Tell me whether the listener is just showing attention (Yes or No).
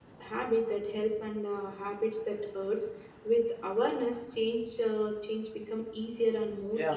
No